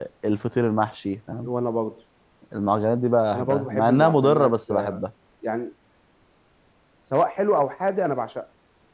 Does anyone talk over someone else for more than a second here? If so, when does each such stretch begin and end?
3.3-5.0

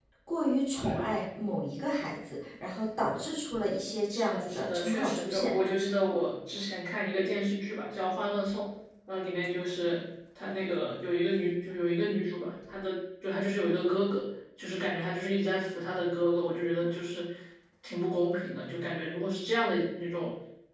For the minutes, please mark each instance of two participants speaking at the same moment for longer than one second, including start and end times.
4.1-5.5

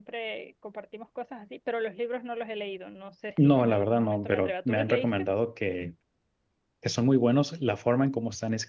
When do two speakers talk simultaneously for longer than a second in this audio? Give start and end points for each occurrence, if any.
3.4-5.2

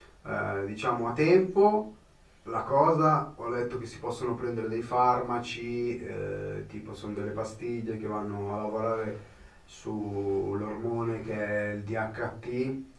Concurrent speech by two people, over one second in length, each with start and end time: none

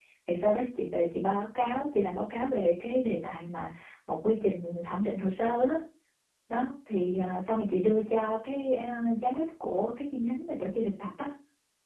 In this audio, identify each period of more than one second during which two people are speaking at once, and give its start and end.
none

